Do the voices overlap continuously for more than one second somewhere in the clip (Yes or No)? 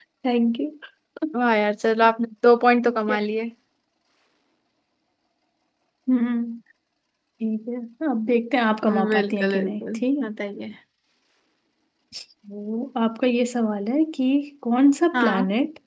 Yes